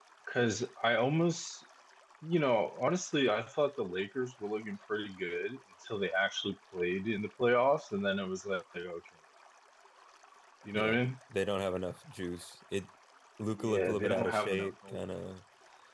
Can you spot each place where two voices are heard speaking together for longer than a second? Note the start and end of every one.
13.6-15.0

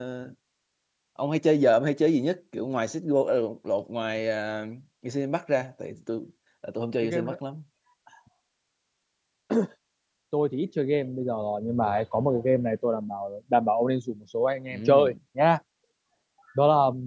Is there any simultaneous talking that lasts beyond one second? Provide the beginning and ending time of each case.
none

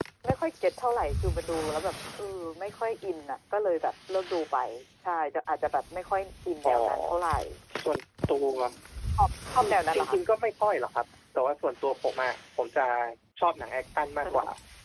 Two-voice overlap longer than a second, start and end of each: none

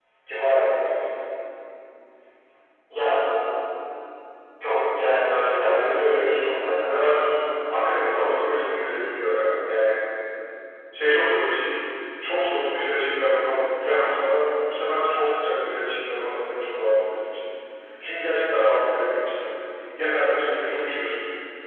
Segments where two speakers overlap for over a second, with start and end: 5.6-7.1

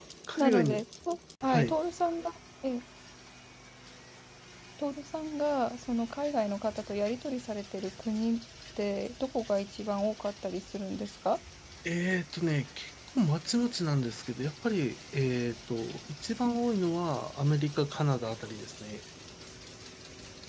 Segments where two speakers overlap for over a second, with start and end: none

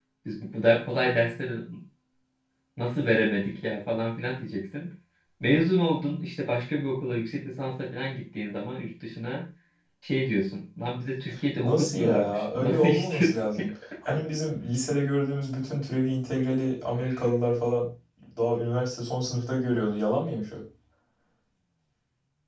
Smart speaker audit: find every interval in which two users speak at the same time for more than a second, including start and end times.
11.6-13.6

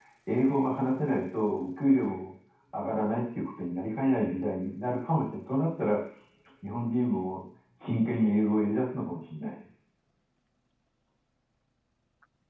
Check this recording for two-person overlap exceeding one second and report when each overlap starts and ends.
none

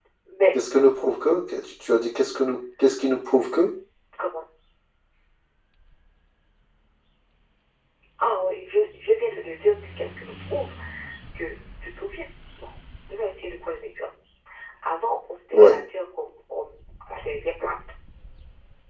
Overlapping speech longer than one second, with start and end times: none

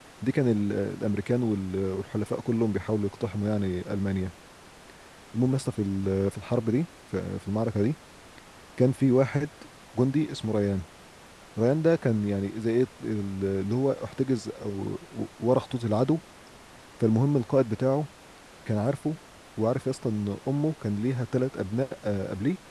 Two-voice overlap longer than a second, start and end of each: none

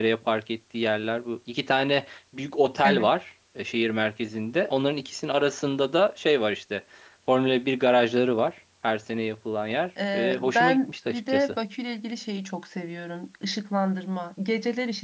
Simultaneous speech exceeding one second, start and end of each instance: 10.1-11.6

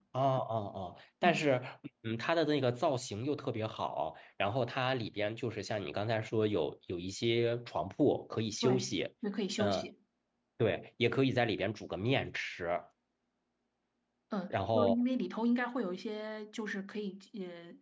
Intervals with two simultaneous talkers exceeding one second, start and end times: none

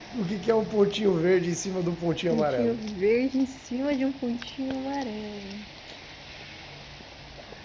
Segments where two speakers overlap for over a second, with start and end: none

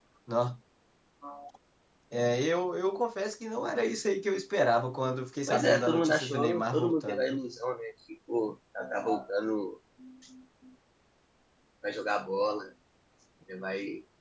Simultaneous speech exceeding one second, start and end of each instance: 5.5-7.5

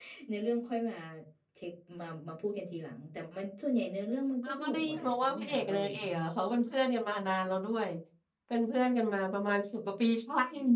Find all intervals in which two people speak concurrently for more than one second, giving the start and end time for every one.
4.4-5.9

